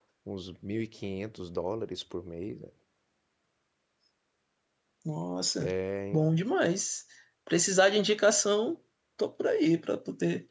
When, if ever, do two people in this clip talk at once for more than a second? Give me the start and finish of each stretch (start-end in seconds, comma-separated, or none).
none